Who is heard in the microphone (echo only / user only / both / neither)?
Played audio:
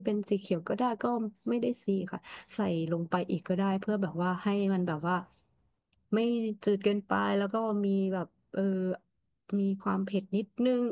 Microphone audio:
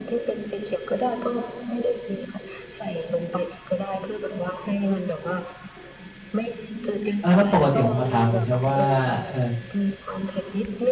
both